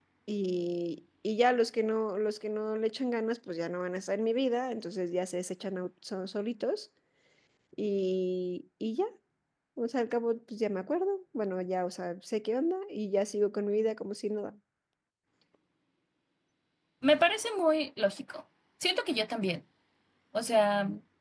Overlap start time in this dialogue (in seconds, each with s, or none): none